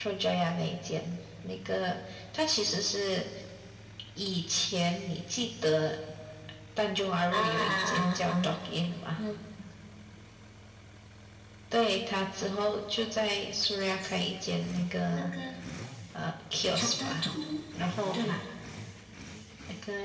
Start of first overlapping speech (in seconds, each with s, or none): 7.3 s